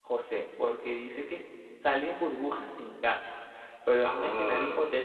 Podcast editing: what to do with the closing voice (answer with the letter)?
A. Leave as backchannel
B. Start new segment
A